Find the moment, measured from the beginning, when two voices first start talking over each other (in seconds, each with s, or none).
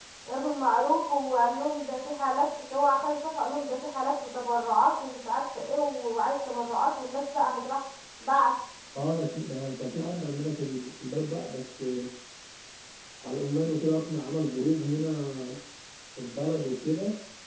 none